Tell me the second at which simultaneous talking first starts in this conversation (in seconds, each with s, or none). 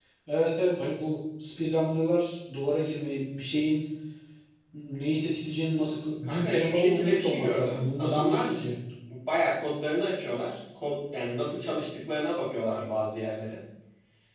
6.2 s